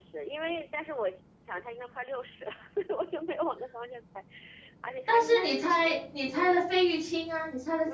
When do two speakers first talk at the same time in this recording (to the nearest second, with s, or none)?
5 s